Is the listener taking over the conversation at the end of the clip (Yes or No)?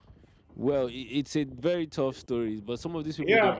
Yes